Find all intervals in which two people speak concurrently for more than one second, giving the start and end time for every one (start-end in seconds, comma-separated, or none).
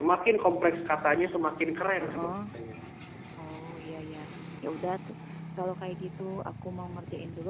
none